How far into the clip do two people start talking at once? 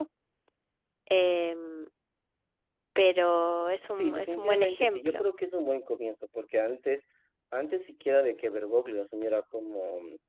3.9 s

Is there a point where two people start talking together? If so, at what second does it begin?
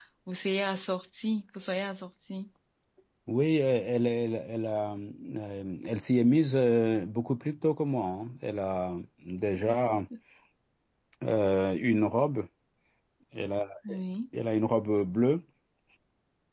none

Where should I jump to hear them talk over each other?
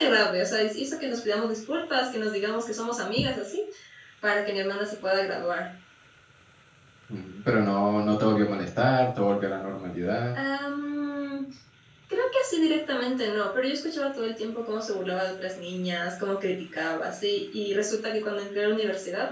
none

